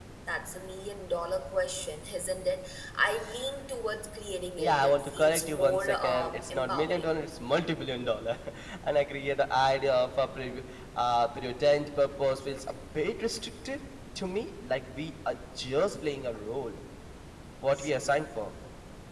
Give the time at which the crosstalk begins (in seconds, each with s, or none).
4.6 s